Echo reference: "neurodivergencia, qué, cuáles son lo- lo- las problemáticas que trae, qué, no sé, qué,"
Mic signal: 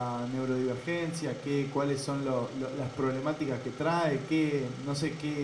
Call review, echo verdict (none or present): present